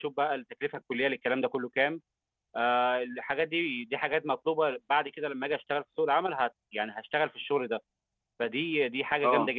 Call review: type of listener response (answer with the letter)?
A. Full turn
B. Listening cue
B